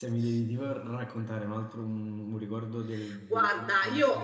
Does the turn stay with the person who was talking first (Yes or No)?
No